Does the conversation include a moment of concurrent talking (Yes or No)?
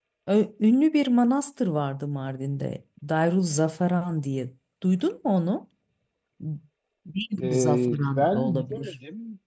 Yes